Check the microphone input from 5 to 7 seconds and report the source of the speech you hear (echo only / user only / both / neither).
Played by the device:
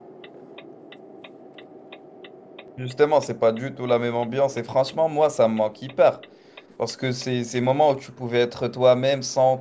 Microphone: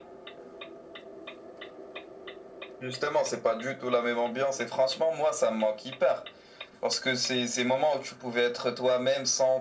echo only